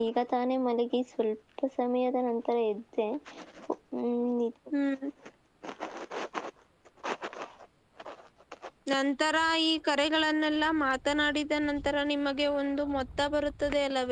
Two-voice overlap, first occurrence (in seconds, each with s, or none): none